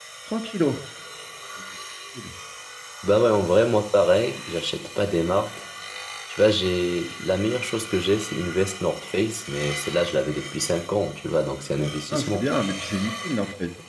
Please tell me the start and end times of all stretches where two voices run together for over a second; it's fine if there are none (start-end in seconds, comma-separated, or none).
none